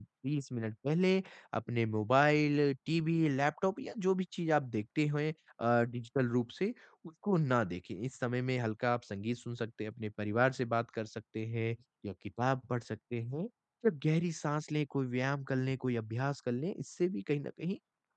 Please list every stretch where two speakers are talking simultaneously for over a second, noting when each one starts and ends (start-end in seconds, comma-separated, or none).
none